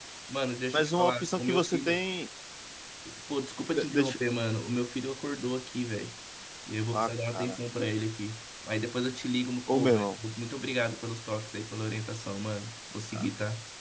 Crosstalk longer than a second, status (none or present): present